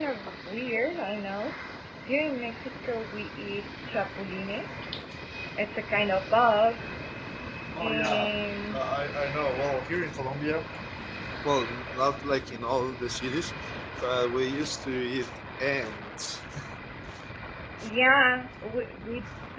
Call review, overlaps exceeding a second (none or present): none